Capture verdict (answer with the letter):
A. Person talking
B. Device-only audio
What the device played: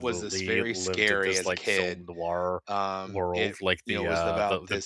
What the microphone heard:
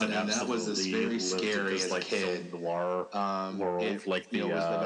B